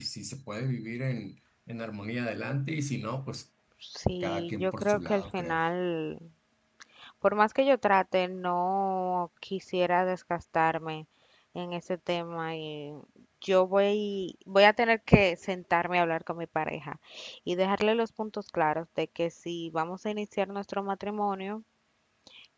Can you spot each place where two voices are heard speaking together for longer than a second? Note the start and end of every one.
4.2-5.6

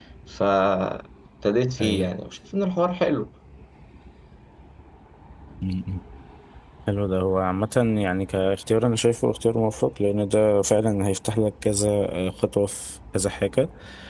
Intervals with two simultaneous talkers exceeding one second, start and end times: none

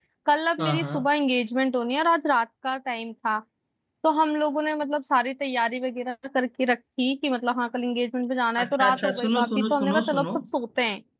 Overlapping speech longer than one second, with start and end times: 8.6-10.3

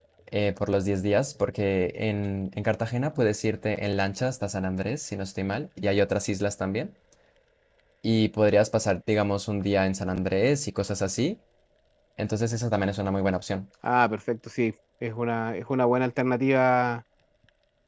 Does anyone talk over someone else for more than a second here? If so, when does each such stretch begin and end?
none

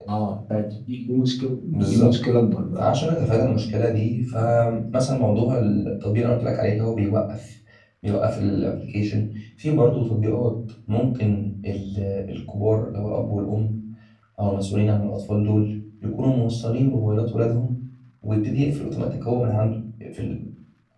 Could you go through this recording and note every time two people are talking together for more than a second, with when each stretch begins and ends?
none

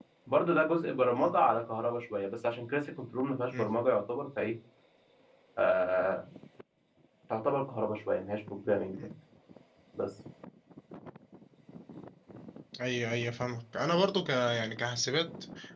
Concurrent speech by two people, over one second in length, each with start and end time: none

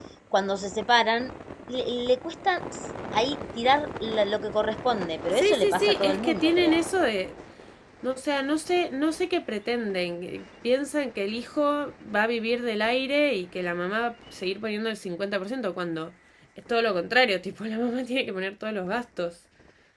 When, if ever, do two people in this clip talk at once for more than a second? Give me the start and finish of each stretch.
5.3-6.8

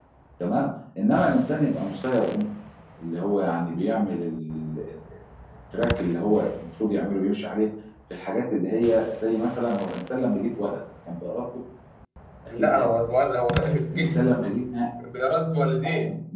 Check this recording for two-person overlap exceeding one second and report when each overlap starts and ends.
none

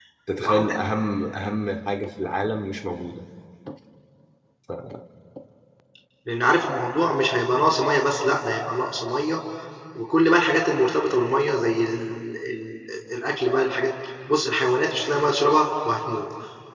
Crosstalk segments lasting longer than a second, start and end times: none

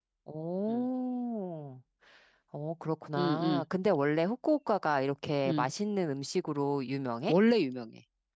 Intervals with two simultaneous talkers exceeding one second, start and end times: none

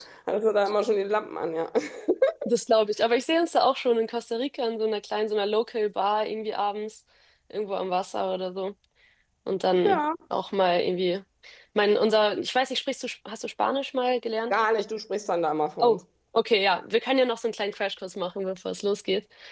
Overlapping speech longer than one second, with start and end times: none

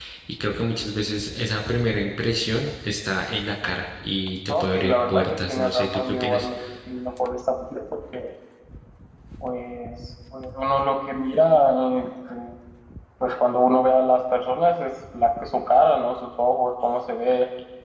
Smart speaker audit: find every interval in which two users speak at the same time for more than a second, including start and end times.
4.5-6.5

